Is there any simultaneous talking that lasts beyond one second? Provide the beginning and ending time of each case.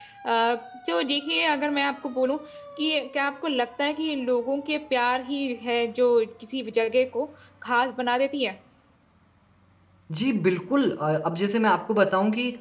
none

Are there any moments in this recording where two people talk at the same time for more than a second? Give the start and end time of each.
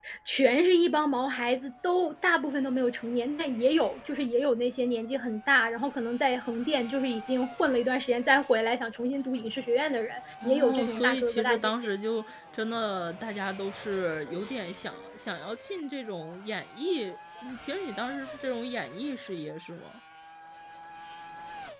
10.4-11.7

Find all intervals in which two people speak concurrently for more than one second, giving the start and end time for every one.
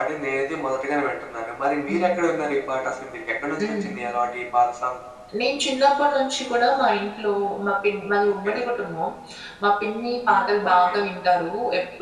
none

